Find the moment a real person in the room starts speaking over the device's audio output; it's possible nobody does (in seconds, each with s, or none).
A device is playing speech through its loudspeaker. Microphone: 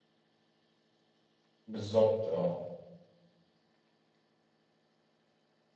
1.7 s